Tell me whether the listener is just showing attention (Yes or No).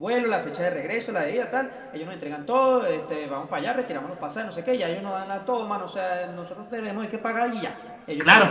No